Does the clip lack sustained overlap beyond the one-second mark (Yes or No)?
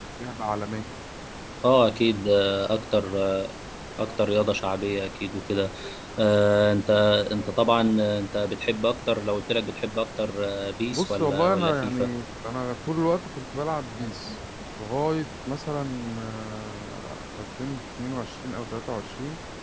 No